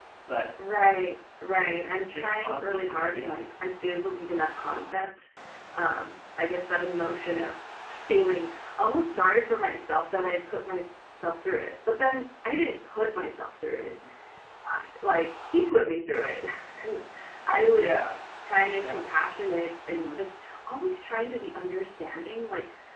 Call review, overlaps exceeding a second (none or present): present